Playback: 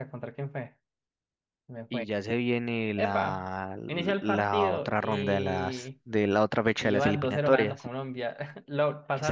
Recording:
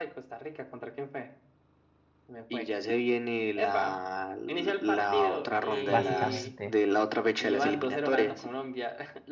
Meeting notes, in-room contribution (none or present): present